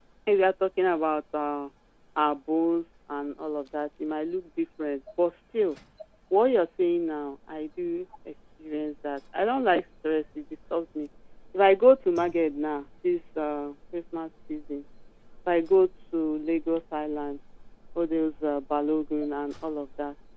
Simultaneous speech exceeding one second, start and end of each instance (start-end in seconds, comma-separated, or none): none